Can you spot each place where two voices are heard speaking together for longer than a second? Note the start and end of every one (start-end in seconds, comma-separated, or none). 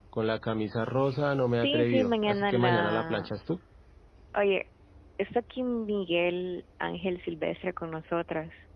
1.6-3.3